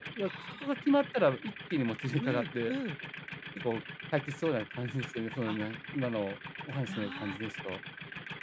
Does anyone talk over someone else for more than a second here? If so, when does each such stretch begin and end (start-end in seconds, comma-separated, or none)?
none